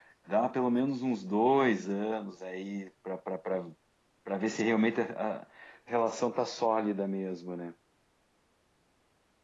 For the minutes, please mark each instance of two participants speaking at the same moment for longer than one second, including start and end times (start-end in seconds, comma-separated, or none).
none